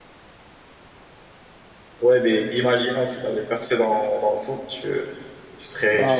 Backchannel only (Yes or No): Yes